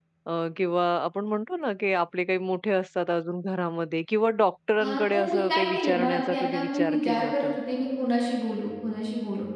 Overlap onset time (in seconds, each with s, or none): 4.8 s